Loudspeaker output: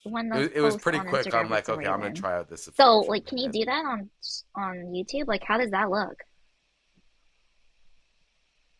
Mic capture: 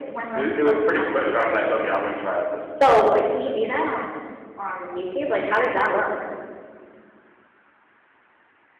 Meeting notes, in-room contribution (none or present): none